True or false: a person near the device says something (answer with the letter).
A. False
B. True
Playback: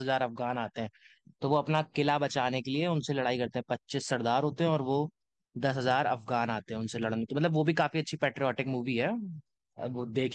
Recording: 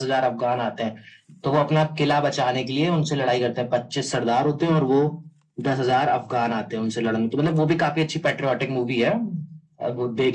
A